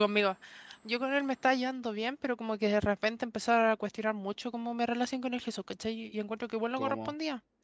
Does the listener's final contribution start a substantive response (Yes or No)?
No